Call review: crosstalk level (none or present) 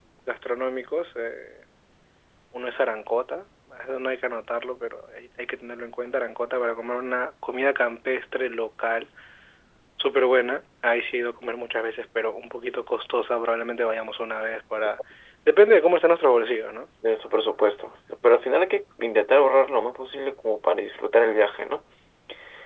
none